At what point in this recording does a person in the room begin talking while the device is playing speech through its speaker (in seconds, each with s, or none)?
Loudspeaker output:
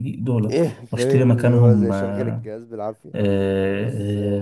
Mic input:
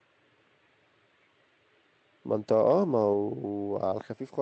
2.2 s